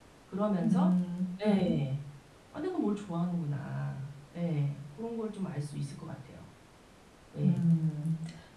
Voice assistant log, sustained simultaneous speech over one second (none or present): none